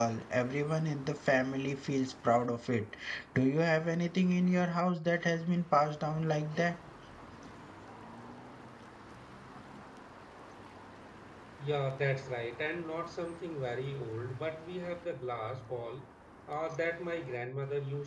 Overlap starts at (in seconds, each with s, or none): none